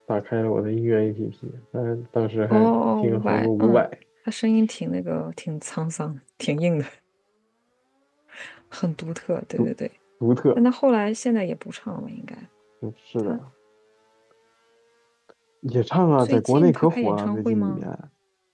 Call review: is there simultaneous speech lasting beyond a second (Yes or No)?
Yes